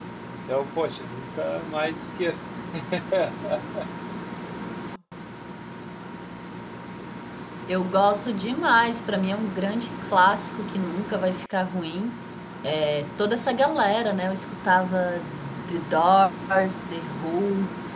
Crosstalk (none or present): none